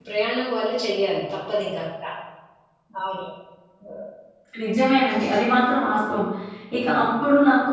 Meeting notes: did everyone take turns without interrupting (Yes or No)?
Yes